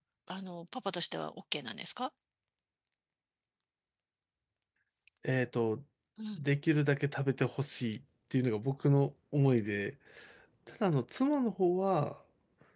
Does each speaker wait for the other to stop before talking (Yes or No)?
Yes